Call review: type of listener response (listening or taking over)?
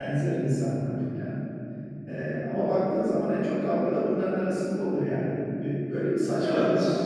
taking over